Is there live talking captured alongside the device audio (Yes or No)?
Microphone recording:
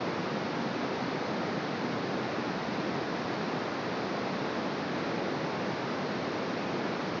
No